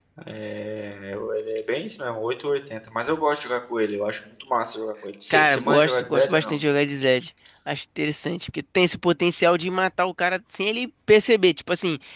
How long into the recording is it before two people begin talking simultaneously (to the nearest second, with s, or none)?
5 s